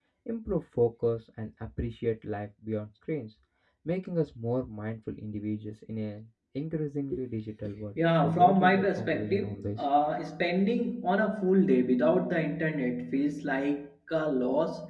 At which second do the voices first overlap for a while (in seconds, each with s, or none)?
8.0 s